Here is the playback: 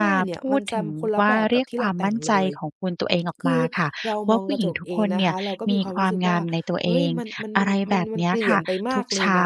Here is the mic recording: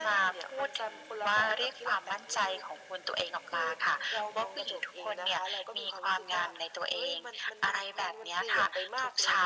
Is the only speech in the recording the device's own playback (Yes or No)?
Yes